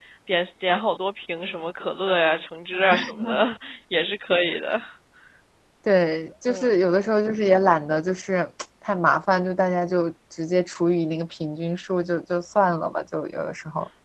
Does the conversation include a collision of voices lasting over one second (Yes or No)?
No